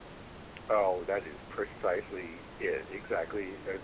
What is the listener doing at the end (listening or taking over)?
taking over